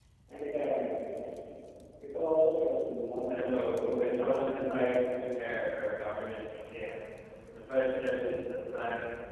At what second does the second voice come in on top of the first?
3.3 s

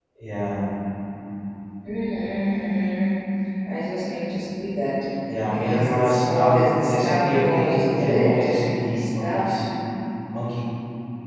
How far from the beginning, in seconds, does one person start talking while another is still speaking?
5.5 s

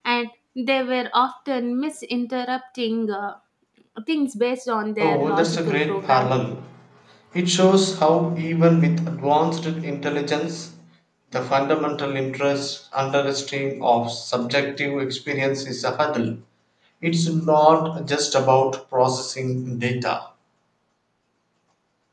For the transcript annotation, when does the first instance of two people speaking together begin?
5.0 s

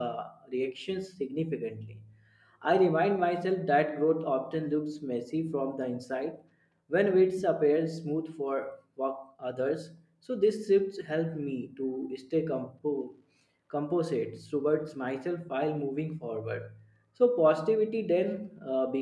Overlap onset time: none

